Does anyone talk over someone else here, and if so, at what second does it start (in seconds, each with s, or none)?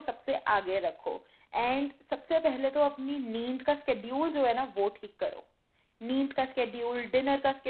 none